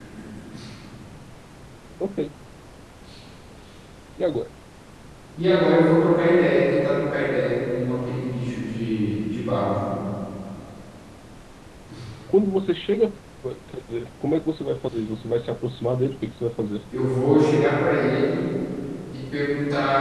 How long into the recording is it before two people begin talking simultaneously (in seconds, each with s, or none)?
none